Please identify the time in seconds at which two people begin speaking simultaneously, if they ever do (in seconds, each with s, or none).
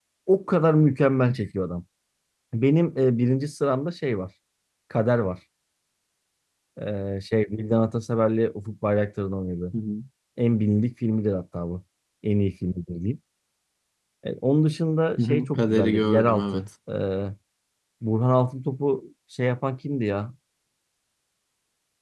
15.2 s